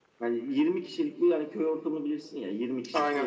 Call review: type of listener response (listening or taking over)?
listening